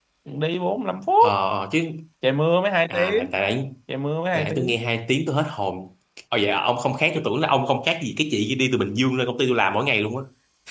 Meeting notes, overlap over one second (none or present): none